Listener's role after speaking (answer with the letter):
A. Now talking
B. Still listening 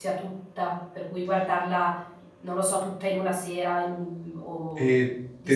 A